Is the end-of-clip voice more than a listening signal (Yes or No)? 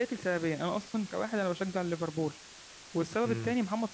No